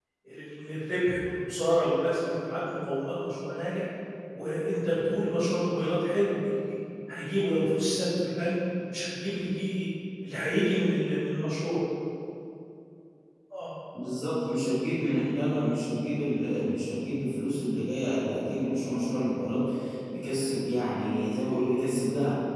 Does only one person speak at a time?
Yes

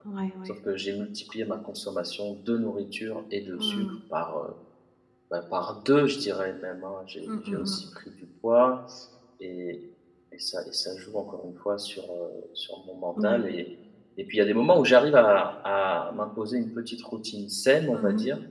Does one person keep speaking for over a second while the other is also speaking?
No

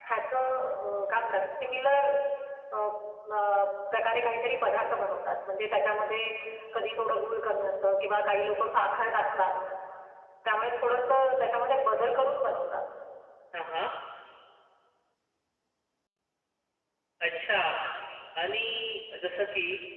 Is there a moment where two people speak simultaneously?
No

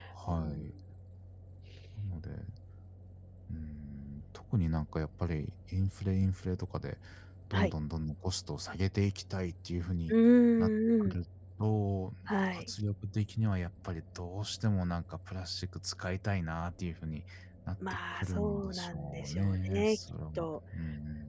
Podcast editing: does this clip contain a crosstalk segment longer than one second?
Yes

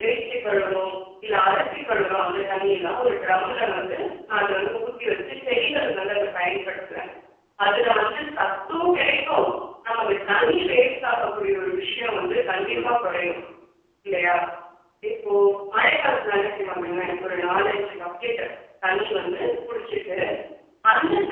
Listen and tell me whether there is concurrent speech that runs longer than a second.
No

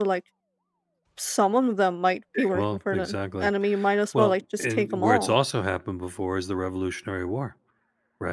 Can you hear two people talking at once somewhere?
Yes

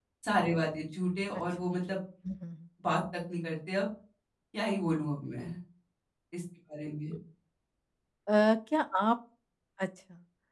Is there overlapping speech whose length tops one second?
No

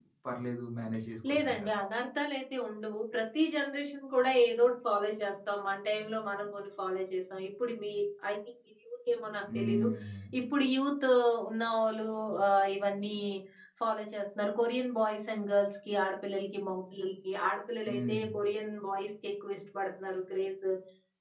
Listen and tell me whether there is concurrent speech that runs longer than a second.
No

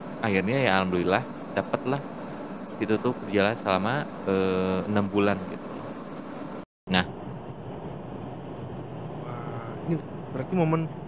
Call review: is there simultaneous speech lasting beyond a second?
No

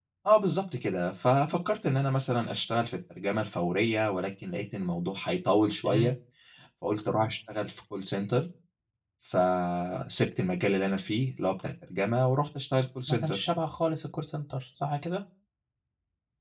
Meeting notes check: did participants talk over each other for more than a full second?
No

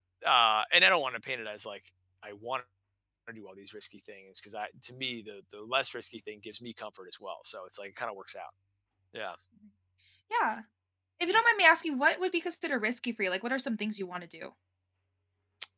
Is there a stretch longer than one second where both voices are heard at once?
No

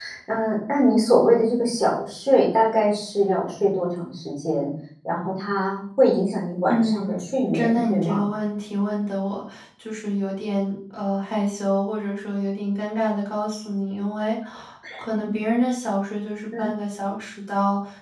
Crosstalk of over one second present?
Yes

